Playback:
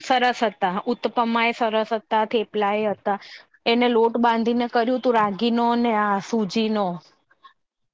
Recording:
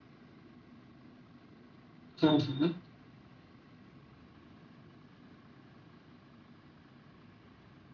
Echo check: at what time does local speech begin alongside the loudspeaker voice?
2.2 s

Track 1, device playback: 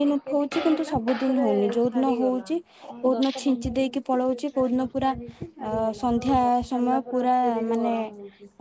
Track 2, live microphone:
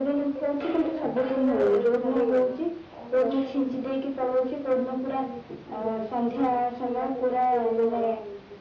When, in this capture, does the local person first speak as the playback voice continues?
none

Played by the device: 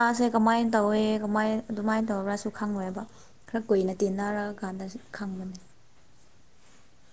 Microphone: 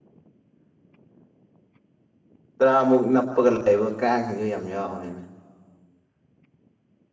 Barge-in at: 2.6 s

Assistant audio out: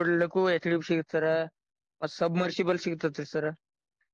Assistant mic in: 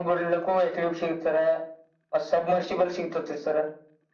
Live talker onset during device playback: none

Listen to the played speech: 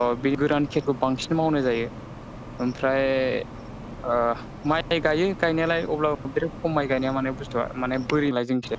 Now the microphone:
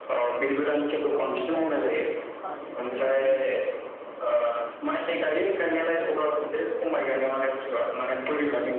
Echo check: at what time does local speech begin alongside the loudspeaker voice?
1.1 s

